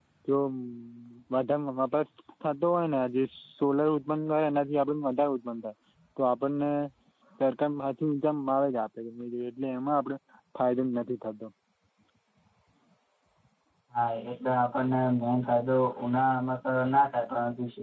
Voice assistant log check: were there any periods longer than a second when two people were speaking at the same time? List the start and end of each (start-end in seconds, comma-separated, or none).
none